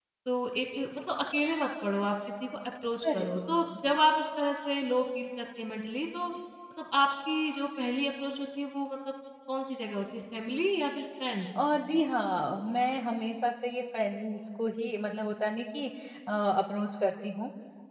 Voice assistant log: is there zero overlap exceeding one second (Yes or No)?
Yes